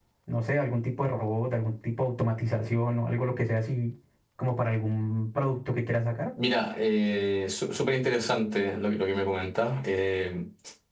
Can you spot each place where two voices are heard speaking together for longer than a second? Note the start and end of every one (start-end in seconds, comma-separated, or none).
none